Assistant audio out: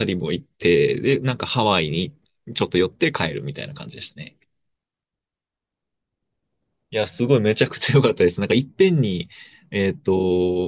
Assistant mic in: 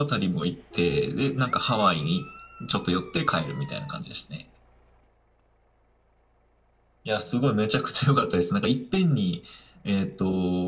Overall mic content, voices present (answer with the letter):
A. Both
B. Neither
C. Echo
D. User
C